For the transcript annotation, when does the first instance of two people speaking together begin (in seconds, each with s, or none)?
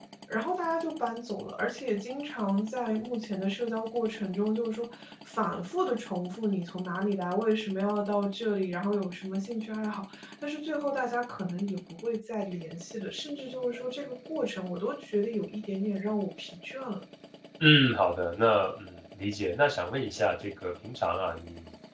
none